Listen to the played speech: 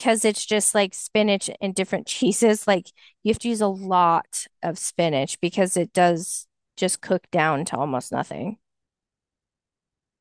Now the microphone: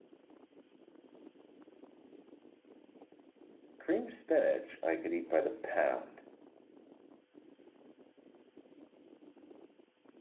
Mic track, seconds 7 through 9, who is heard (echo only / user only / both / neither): neither